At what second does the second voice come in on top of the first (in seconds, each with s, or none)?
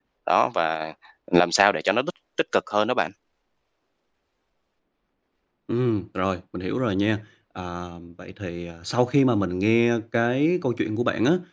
none